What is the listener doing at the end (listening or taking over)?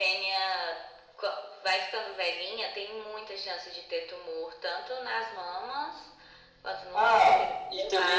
taking over